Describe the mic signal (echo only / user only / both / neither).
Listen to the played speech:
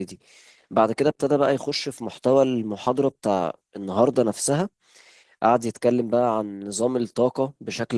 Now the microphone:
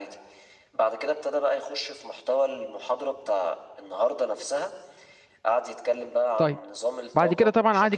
both